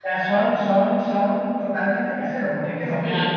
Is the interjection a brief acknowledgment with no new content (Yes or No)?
Yes